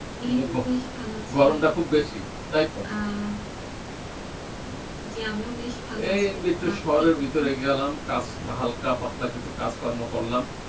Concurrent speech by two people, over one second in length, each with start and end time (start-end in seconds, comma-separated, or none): 6.0-7.5